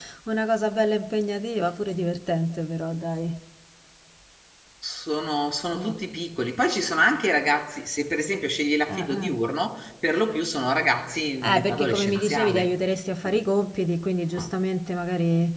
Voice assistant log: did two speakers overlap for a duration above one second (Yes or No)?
Yes